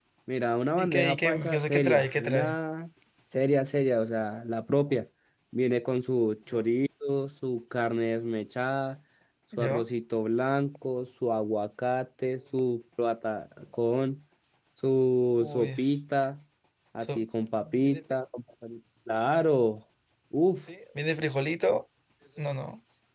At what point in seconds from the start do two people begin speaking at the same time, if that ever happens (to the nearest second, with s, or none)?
1 s